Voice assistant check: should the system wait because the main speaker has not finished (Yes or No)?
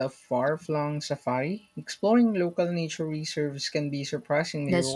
No